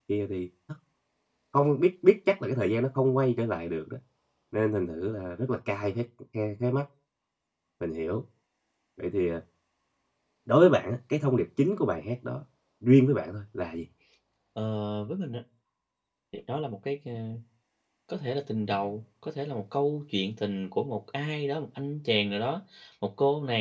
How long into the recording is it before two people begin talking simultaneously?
none

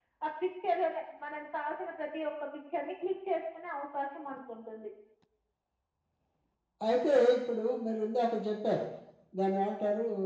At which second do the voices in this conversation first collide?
none

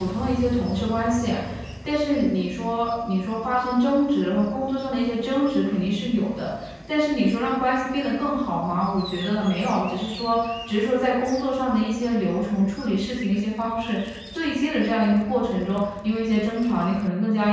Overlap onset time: none

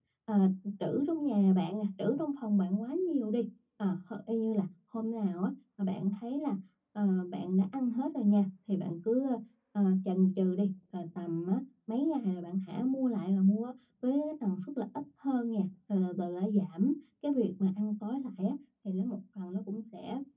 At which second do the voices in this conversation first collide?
none

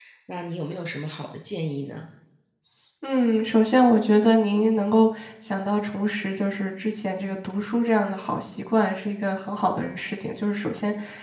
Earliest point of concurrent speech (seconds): none

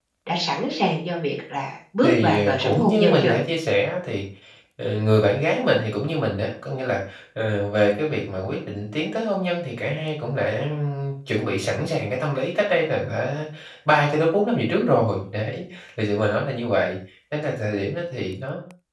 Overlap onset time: 2.0 s

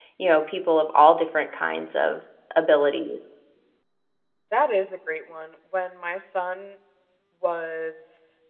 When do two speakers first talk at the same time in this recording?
none

